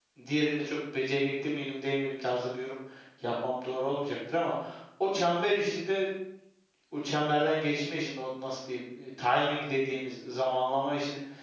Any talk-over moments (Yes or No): No